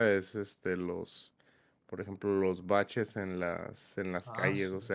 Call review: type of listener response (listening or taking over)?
listening